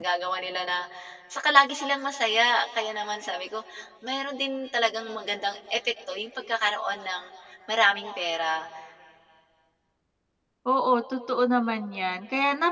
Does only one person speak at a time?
Yes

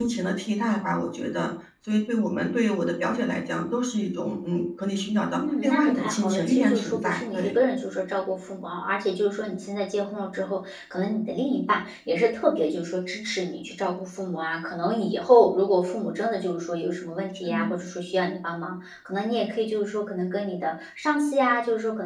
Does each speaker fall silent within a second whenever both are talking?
No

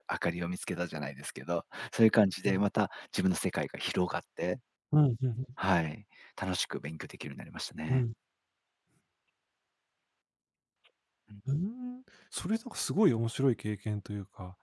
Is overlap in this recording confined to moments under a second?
Yes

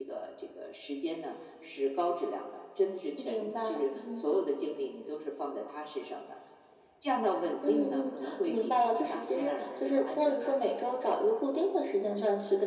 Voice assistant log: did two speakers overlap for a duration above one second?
Yes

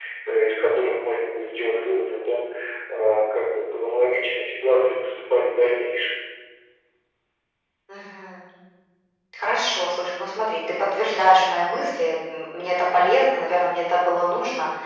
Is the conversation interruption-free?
Yes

